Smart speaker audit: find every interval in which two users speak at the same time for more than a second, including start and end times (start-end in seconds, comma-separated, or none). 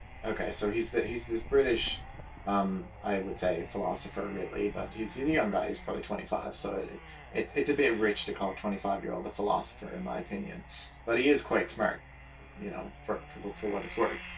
none